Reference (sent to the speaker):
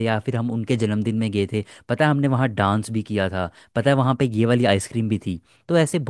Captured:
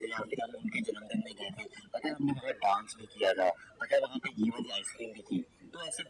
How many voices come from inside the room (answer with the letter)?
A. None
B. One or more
A